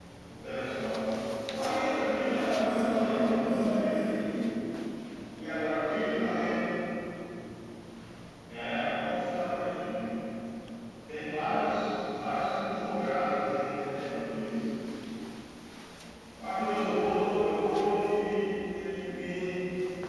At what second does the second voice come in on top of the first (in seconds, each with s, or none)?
2.3 s